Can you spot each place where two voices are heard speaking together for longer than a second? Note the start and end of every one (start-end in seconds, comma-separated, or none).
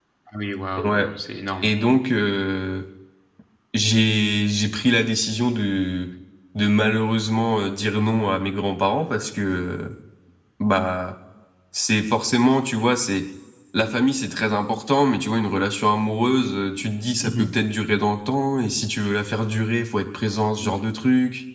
none